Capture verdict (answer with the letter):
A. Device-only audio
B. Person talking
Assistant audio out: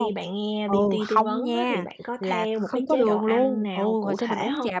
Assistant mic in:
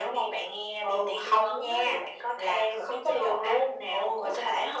A